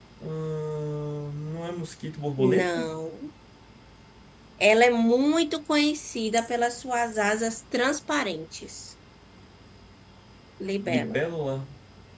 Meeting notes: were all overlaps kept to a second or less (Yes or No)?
Yes